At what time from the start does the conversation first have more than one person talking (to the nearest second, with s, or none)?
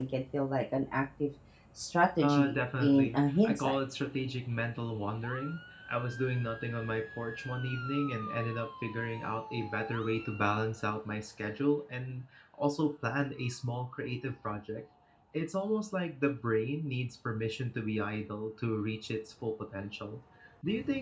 2 s